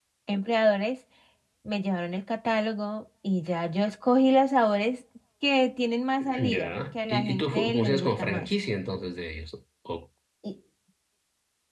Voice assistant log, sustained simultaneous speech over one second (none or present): present